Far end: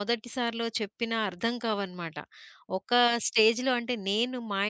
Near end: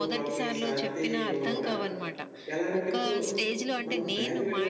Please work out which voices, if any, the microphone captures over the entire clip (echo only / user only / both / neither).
both